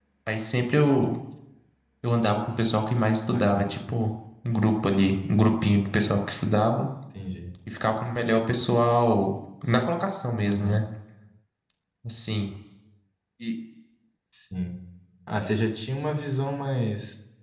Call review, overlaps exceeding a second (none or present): none